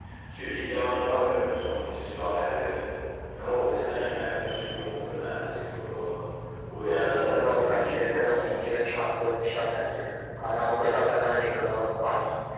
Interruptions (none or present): present